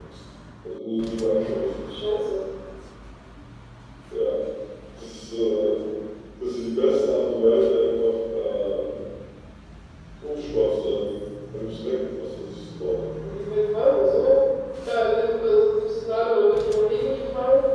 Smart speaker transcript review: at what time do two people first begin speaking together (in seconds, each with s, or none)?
none